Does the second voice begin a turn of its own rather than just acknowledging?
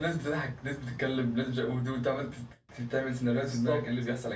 Yes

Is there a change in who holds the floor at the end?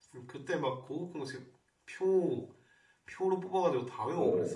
Yes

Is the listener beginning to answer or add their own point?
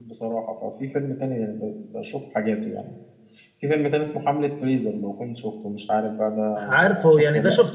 Yes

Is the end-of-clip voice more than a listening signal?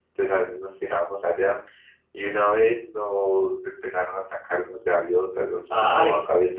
No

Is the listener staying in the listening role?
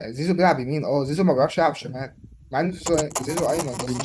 No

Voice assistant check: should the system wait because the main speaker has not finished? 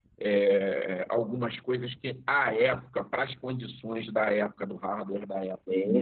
Yes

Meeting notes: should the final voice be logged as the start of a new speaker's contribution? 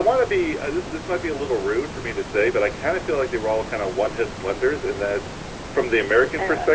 No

